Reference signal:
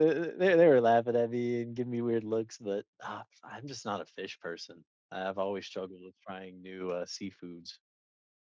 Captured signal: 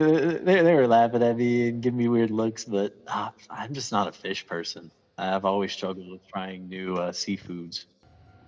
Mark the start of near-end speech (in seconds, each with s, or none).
none